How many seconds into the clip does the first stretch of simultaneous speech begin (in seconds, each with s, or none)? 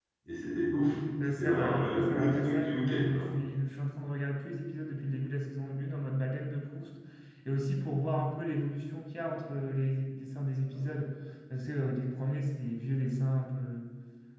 1.4 s